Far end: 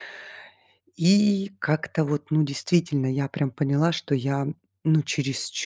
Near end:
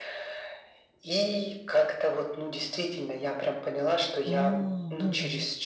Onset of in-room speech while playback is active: 4.2 s

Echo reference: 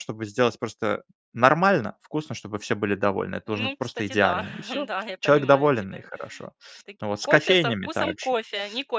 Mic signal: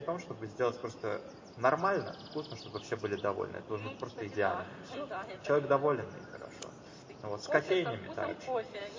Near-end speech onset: none

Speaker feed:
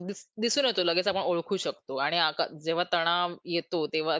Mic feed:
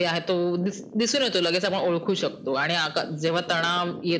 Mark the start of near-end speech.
none

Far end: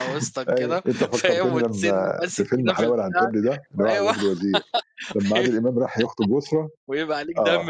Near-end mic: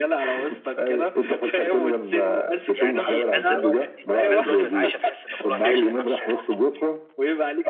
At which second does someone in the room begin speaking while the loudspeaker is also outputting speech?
2.7 s

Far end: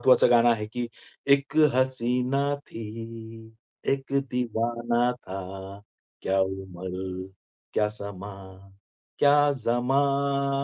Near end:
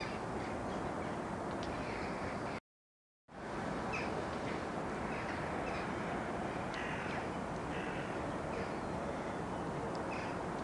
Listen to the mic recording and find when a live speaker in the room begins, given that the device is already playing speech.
none

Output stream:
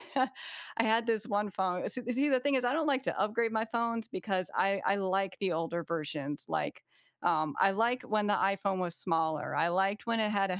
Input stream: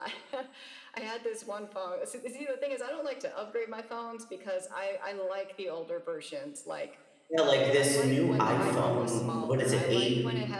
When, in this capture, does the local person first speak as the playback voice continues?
7.3 s

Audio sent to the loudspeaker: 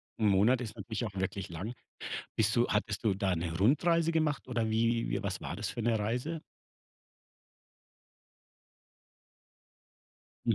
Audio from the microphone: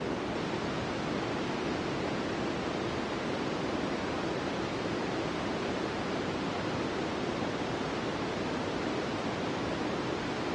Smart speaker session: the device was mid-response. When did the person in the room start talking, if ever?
none

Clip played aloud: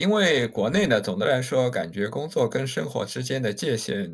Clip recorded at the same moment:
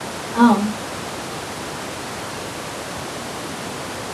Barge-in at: 0.3 s

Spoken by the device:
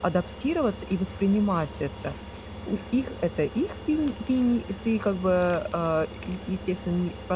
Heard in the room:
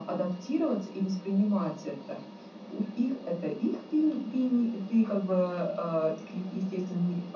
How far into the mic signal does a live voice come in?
none

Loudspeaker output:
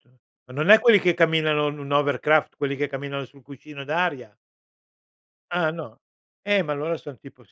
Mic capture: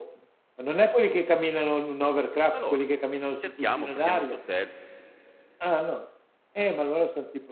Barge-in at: 2.5 s

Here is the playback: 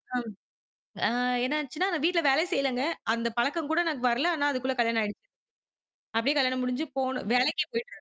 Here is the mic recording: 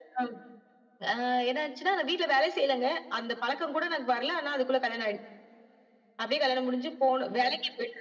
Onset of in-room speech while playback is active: none

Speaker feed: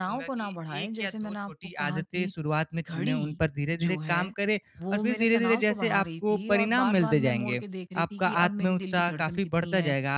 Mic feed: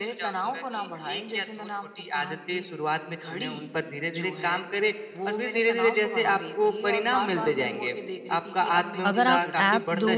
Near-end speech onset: 9.0 s

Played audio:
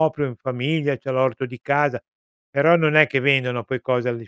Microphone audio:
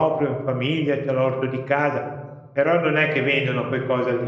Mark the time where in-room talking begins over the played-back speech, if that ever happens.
none

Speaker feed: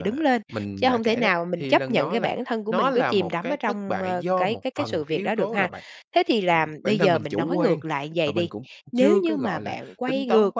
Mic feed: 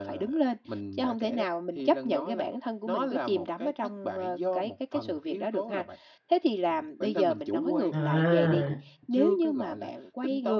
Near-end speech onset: 7.9 s

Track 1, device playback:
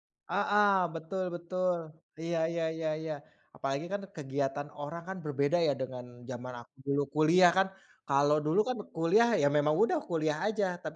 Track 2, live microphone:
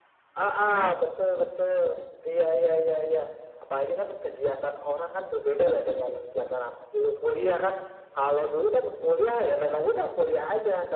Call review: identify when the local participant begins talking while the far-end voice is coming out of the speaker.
0.6 s

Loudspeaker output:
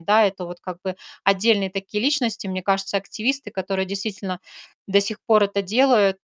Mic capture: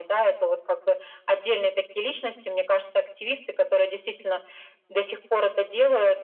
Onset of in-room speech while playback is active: none

